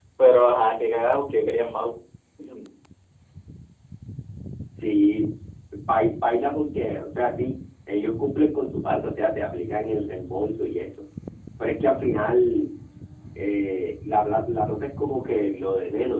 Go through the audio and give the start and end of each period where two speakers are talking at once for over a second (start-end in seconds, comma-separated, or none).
none